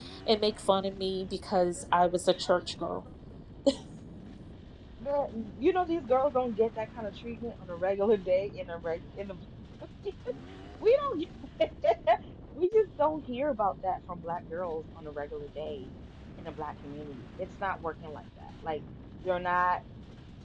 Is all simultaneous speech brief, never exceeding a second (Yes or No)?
Yes